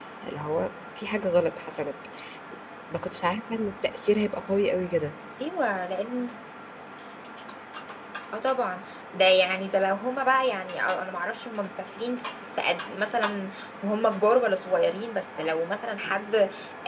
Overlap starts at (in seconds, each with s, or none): none